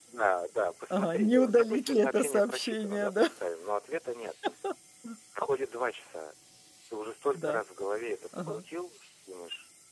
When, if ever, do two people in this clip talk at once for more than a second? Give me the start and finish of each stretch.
0.9-3.3

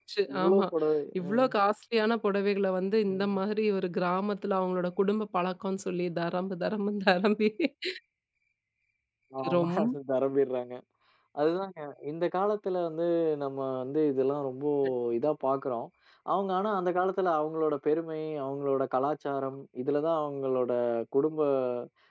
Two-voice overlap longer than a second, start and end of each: none

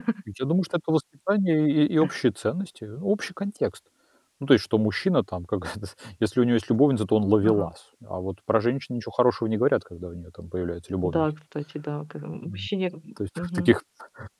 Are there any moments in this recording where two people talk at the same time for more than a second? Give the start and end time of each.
none

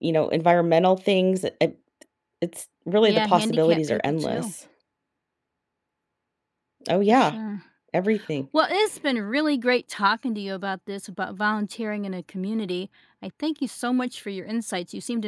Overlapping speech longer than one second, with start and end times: 3.0-4.5

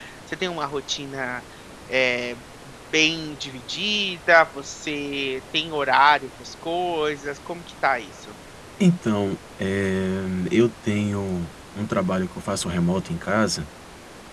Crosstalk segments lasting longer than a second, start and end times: none

